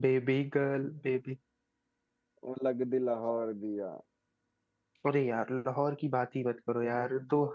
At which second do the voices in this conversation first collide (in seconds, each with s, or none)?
none